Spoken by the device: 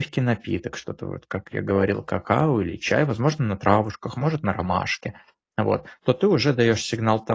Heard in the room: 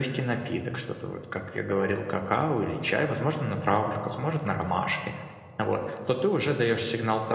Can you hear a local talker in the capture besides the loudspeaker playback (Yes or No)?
No